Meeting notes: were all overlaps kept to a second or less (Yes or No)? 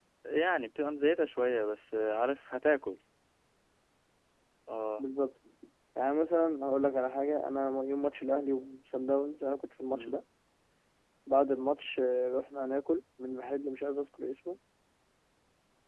Yes